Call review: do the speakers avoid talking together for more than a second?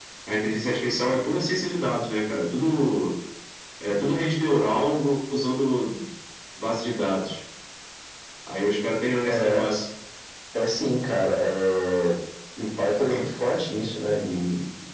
Yes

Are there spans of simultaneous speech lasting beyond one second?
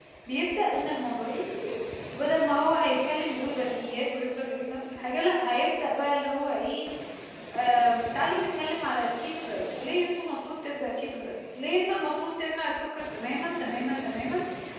No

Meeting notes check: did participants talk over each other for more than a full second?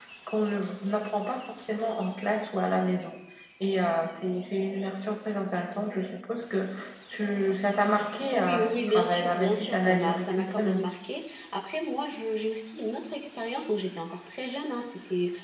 Yes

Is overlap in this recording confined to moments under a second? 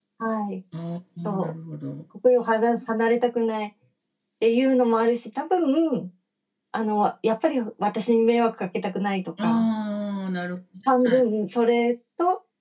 Yes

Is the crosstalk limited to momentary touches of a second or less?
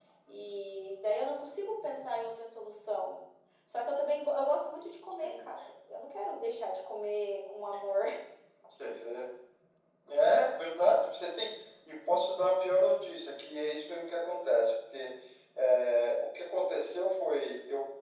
Yes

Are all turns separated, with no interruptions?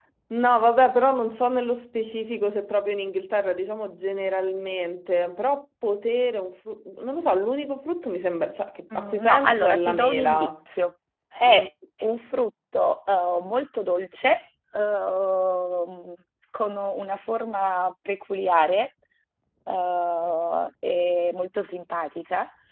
No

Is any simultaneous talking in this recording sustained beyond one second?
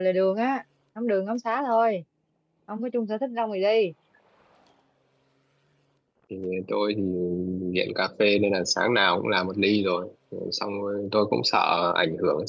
No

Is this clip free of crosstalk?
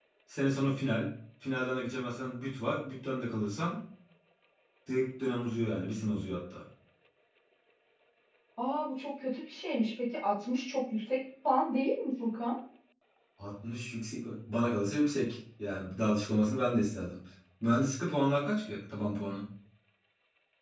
Yes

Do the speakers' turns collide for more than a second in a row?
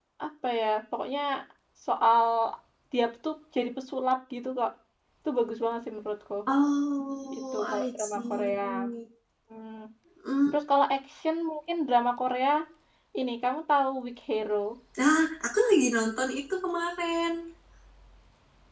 Yes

